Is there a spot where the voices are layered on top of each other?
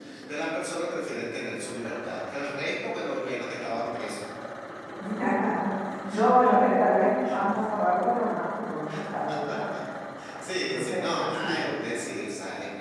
Yes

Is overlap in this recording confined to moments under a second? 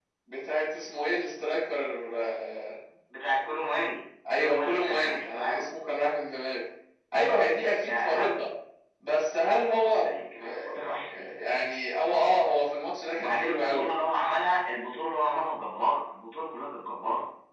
No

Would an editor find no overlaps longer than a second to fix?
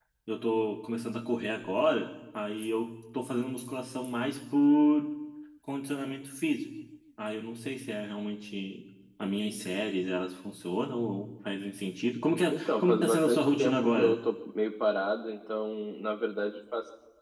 No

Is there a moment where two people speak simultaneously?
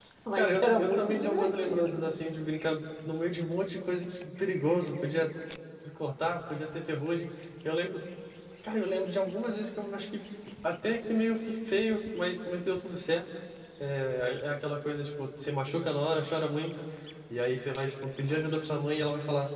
Yes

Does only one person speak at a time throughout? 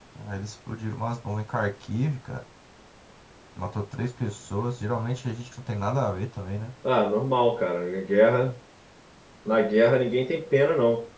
Yes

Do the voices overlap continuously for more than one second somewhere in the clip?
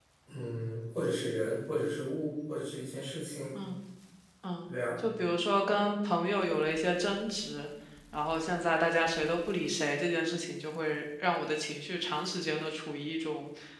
No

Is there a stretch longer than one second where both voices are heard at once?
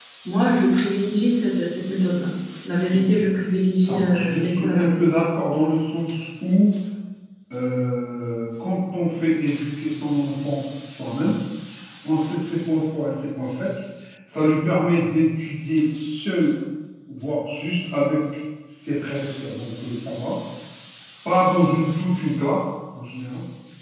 Yes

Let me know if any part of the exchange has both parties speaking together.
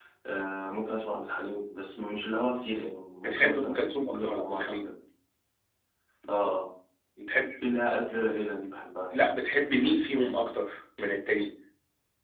Yes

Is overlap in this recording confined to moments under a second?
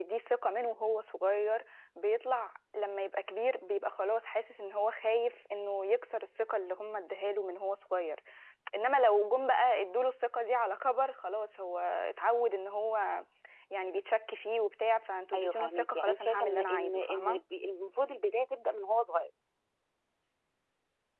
No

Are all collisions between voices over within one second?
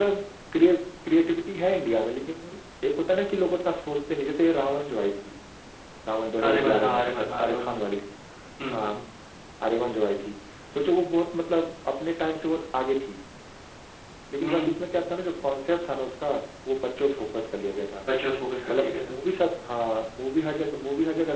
No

